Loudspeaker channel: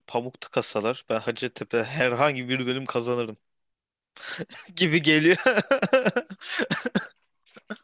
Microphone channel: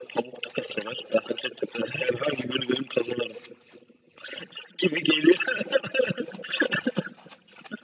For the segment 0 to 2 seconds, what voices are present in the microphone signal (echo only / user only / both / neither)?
echo only